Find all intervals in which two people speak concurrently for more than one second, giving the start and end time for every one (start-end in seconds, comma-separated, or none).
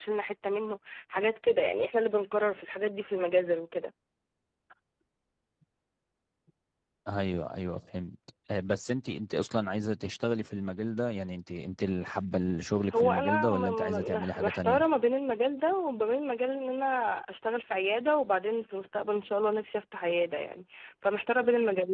13.0-14.8